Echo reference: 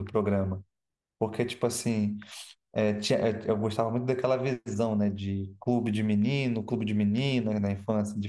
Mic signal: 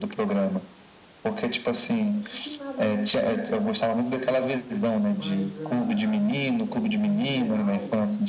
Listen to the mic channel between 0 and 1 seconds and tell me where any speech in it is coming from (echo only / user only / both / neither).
echo only